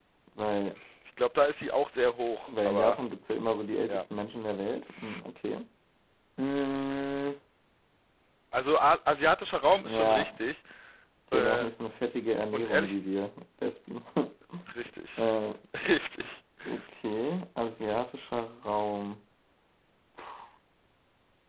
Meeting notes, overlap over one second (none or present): none